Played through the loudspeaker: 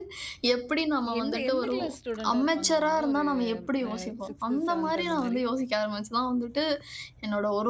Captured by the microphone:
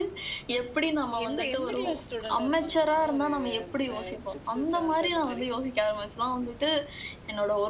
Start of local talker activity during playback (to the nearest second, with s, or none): none